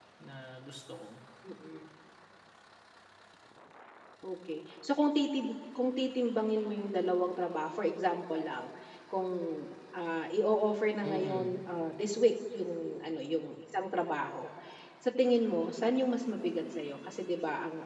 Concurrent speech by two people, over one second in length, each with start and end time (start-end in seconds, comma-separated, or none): none